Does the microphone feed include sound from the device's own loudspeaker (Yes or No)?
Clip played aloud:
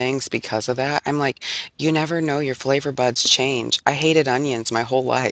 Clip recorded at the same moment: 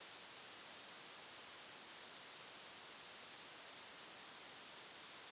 No